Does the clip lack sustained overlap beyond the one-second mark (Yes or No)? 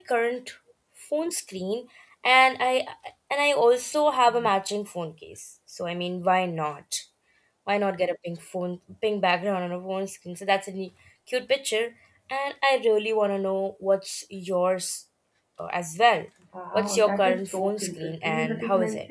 No